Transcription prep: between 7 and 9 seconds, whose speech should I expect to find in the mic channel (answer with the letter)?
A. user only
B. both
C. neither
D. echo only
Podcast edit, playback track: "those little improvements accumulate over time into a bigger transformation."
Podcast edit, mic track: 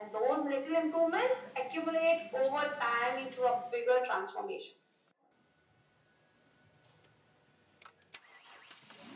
C